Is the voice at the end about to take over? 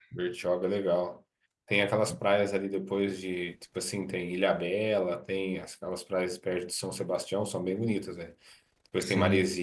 No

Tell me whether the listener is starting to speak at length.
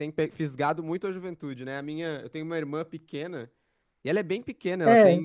No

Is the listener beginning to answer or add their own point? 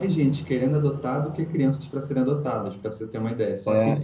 Yes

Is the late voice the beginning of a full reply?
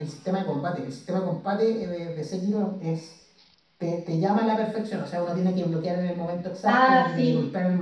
No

